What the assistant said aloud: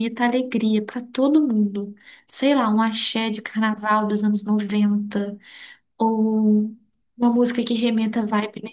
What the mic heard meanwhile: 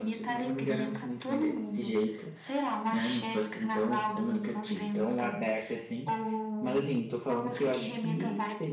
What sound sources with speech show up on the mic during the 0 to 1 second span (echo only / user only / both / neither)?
both